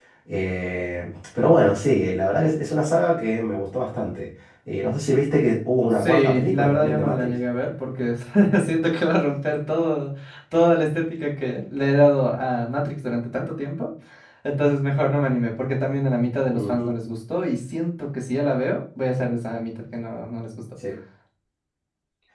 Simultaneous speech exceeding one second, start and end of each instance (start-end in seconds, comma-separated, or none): 5.9-7.3